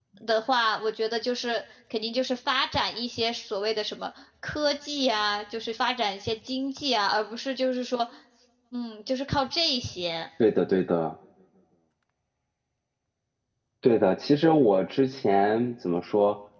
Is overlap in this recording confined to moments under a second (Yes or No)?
Yes